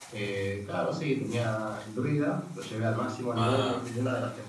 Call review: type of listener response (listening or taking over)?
listening